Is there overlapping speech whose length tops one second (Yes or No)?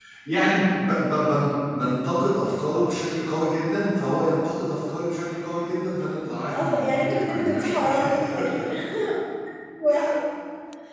Yes